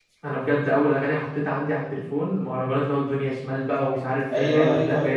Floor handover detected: Yes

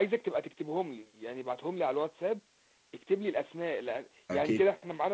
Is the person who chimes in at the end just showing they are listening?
Yes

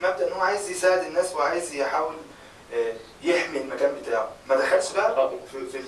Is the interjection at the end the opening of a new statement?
No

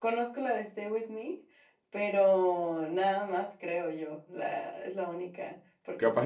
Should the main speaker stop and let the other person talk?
Yes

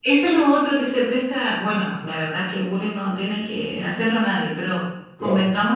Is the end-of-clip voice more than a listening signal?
No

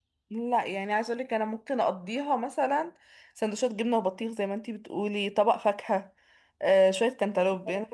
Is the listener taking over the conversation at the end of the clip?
No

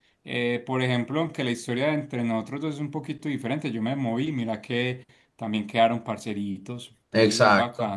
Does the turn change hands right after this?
Yes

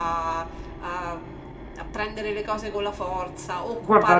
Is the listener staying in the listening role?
No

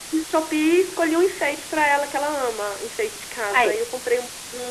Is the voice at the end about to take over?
No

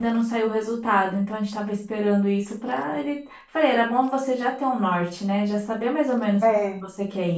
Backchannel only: Yes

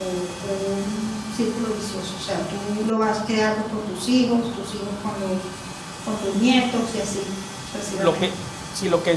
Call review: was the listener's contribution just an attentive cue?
No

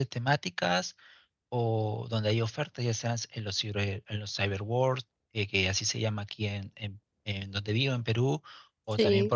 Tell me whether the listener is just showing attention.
Yes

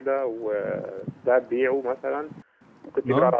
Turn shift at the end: No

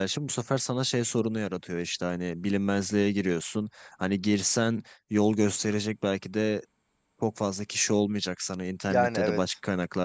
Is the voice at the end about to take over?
No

